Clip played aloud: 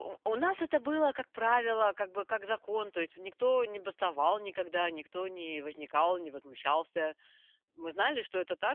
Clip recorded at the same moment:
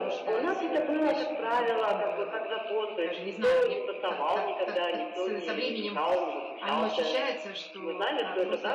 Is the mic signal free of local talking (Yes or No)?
No